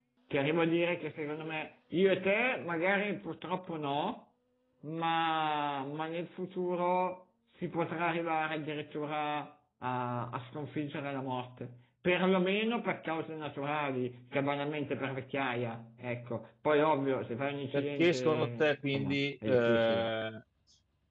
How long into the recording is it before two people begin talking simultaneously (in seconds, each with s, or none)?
17.7 s